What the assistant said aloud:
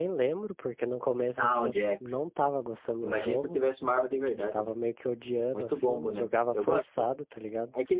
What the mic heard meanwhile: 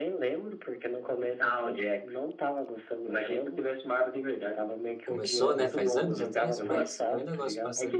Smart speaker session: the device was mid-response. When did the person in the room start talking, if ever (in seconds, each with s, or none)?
5.0 s